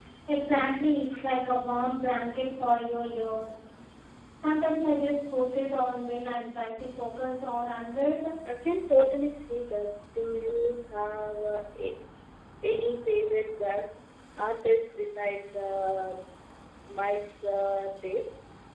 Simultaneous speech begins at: none

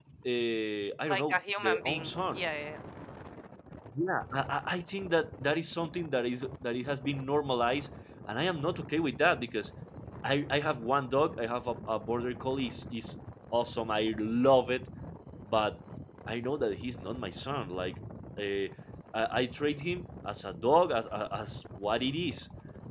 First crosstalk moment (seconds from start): 1.1 s

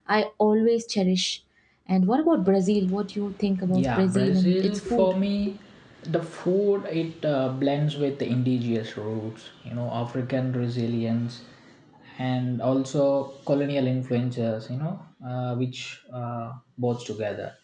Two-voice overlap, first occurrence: 3.6 s

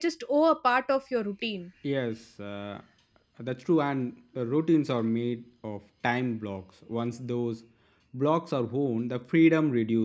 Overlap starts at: none

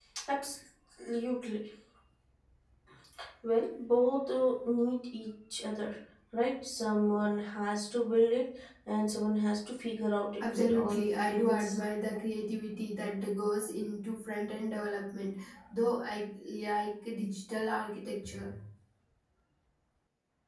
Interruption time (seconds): 10.4 s

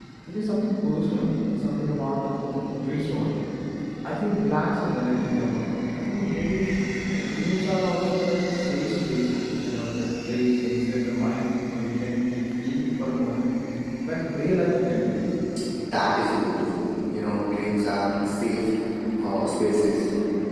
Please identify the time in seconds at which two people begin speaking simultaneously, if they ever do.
none

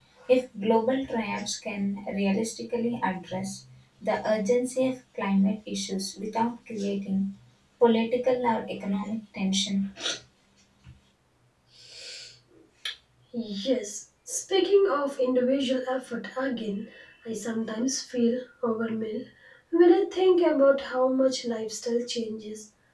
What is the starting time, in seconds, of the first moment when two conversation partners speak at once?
none

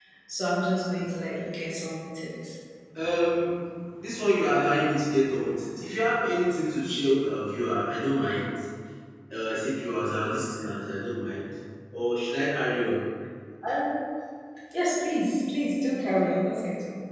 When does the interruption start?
none

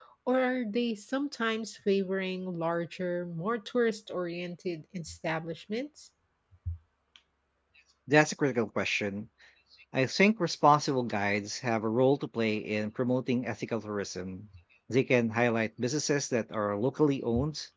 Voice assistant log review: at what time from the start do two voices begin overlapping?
none

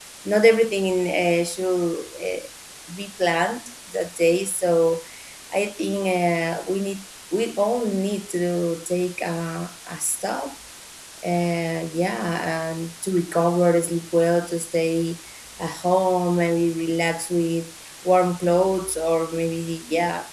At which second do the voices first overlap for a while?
none

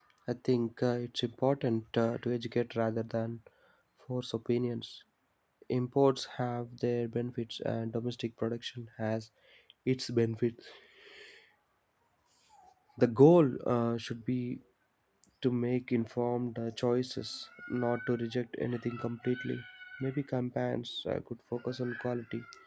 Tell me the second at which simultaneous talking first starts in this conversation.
none

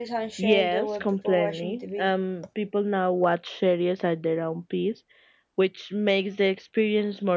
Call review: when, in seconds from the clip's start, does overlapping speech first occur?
0.5 s

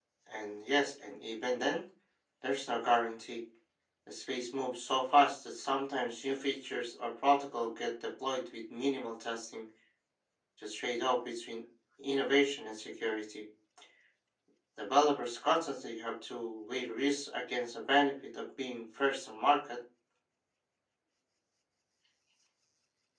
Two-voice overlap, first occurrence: none

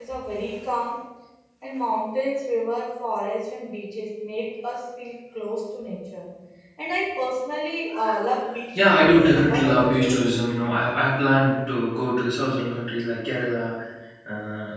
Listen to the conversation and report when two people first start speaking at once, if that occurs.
8.8 s

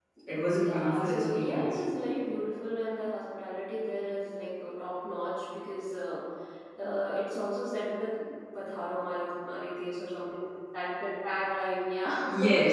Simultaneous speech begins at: 0.5 s

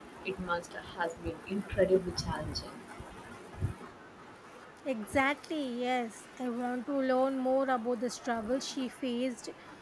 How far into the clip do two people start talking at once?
none

